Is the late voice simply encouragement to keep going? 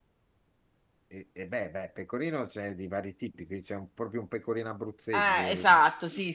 No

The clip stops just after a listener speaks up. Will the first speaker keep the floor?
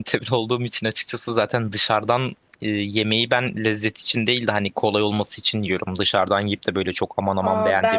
No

